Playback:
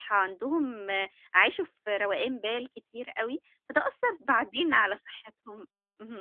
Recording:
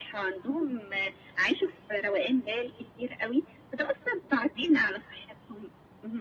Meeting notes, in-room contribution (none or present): none